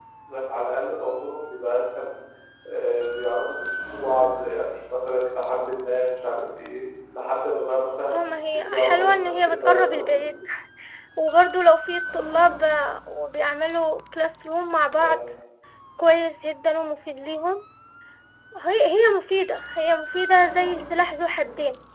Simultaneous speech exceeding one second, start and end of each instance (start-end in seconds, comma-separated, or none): 8.5-10.1